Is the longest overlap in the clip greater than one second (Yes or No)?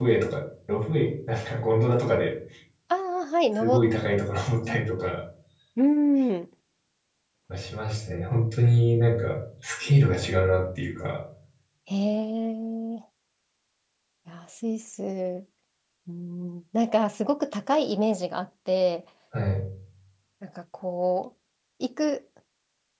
No